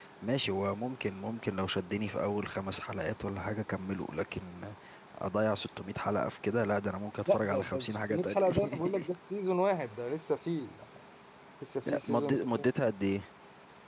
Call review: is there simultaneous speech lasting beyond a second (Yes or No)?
Yes